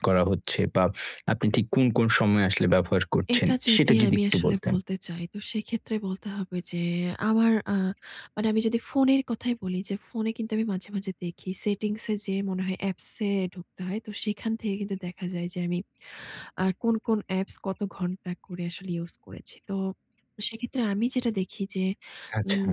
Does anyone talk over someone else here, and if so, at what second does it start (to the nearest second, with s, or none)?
3 s